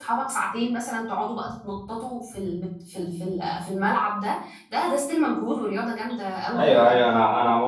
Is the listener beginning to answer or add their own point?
Yes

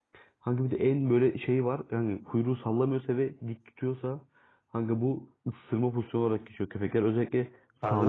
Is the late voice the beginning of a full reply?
No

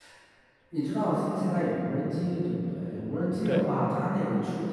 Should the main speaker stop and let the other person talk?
No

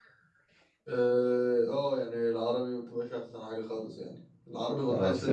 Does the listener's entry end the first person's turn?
No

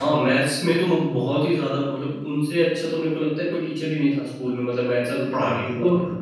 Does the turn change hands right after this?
Yes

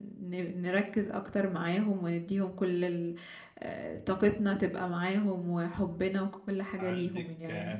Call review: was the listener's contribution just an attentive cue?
No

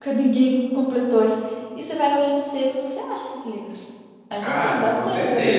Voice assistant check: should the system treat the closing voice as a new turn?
Yes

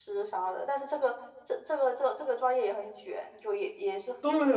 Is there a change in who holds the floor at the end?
Yes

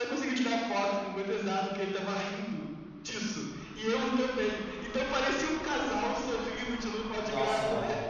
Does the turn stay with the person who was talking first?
No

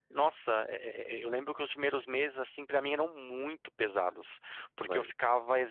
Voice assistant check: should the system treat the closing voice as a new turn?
No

